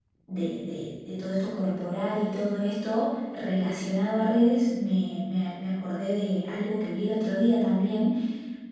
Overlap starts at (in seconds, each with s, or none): none